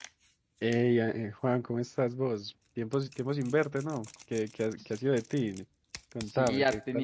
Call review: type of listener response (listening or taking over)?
taking over